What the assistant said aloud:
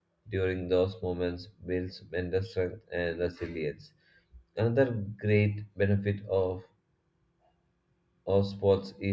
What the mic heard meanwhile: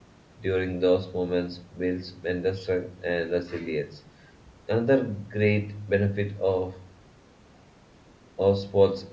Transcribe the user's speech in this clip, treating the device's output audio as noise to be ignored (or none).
none